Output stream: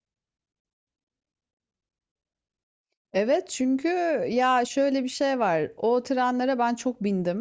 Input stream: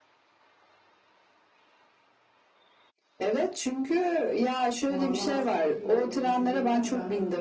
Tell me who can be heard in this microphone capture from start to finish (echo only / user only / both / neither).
both